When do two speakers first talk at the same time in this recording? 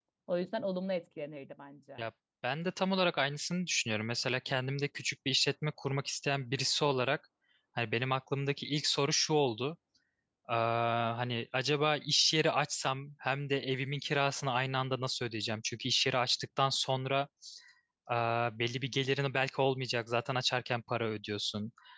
none

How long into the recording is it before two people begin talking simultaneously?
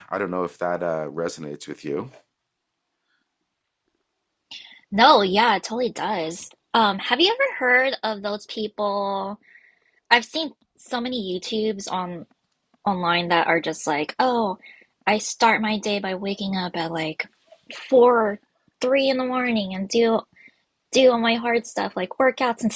none

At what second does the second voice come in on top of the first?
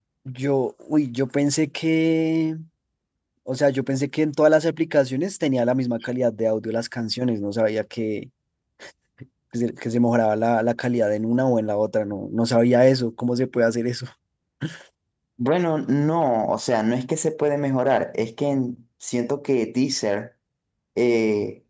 none

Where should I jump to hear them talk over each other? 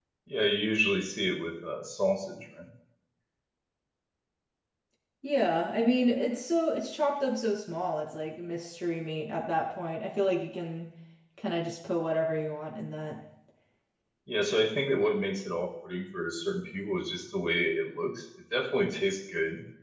none

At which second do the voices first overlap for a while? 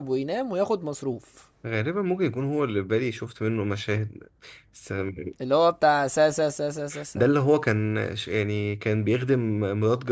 none

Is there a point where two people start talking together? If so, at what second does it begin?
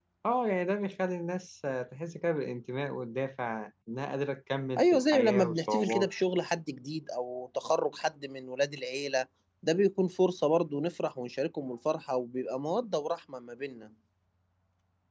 4.8 s

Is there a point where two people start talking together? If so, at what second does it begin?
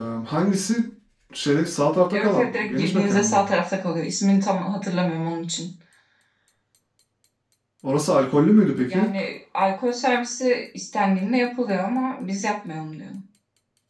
2.1 s

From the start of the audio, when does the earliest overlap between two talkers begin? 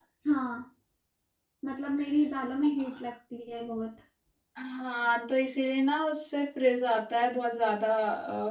none

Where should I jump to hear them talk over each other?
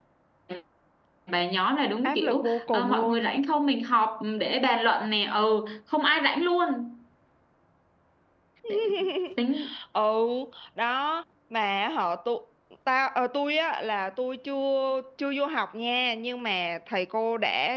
2.0 s

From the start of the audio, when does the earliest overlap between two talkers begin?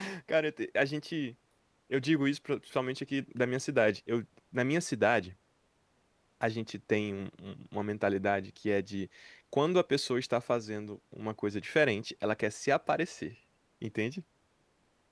none

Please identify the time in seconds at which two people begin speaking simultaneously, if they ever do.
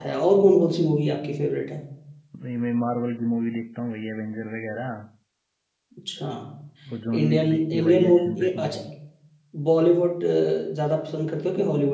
7.2 s

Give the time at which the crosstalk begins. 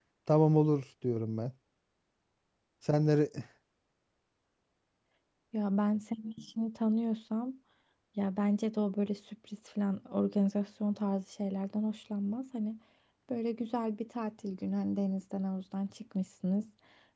none

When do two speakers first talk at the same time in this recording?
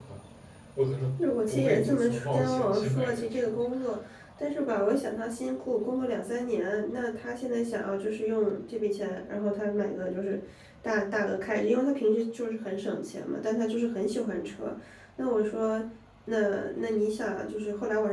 1.5 s

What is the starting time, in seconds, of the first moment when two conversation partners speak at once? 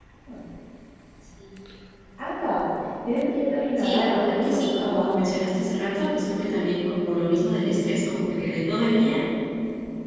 3.8 s

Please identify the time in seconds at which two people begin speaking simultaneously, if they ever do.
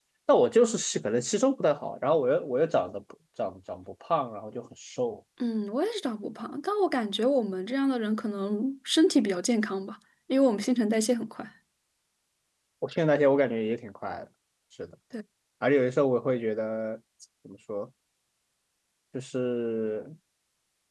none

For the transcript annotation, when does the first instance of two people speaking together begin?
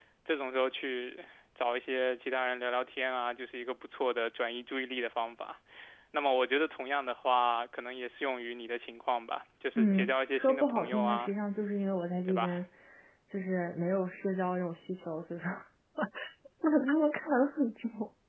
9.8 s

